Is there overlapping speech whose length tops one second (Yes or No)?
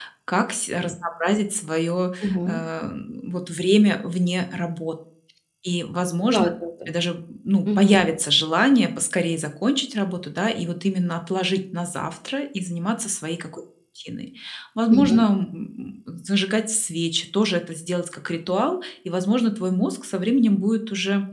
No